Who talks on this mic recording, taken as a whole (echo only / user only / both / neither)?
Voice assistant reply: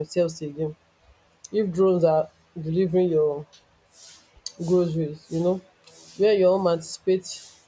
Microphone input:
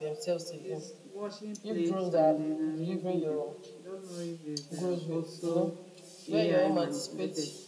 both